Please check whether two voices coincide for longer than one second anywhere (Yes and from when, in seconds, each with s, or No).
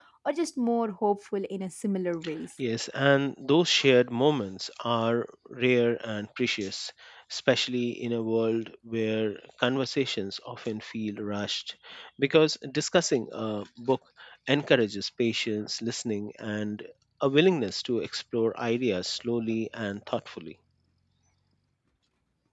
No